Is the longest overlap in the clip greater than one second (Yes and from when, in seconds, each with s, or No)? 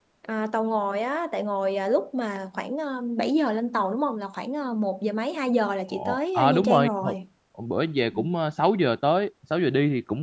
Yes, from 5.9 s